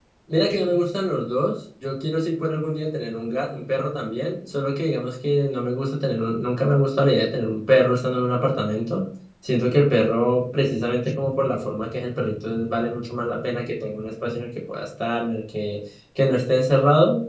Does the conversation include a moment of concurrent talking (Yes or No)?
No